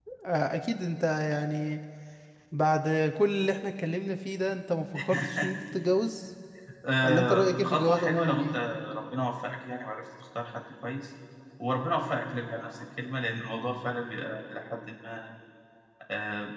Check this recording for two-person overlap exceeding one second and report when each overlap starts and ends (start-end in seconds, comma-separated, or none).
7.0-8.6